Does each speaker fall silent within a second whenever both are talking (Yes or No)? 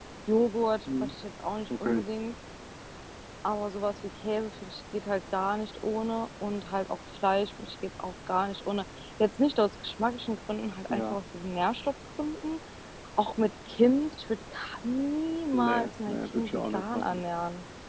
No